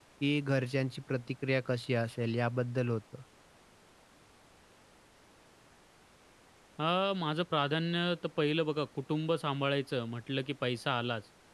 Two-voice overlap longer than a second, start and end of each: none

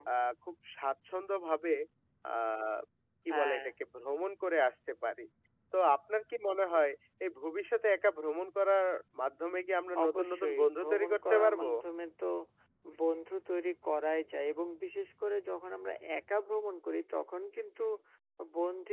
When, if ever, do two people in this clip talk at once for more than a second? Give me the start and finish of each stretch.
10.0-11.7

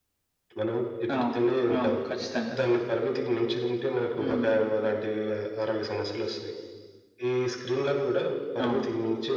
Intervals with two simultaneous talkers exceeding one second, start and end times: none

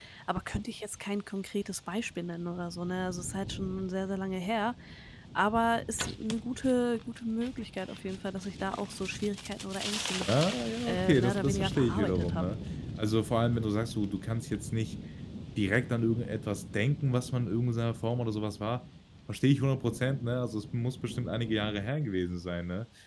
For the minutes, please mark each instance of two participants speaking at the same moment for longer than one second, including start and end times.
10.9-12.4

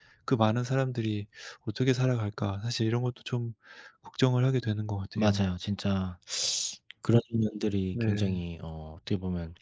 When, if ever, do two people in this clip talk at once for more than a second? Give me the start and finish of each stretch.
none

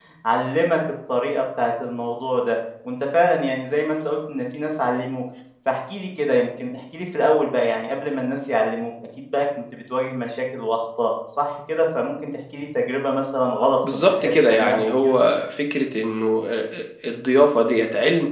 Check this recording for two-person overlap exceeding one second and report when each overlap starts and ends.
13.9-15.2

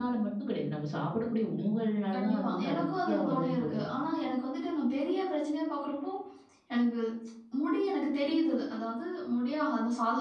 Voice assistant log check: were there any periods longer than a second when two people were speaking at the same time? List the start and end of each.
2.1-3.8

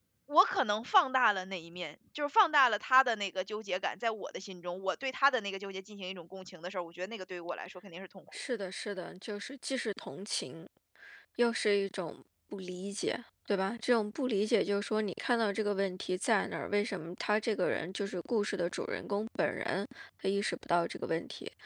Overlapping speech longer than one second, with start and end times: none

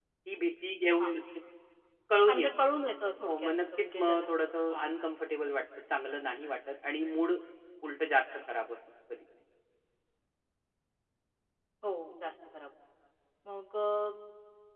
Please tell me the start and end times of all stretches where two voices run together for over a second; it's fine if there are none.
3.3-4.8

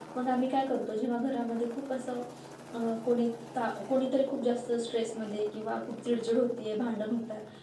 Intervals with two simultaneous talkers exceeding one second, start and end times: none

